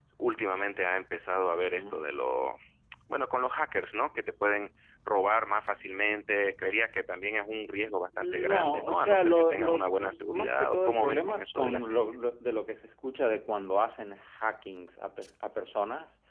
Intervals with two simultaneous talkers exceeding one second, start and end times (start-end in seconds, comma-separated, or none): 8.2-11.9